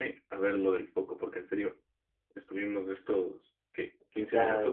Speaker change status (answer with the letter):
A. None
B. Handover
A